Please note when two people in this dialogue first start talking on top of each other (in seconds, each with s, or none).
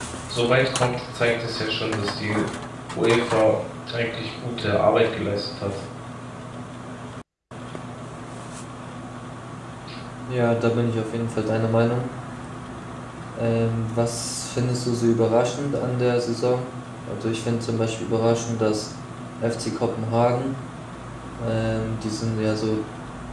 none